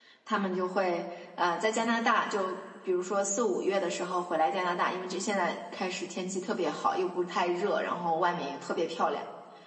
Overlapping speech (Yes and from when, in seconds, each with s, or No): No